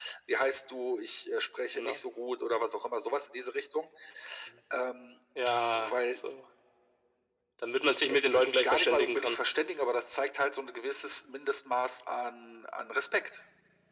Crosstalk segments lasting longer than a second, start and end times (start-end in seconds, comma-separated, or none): 8.1-9.4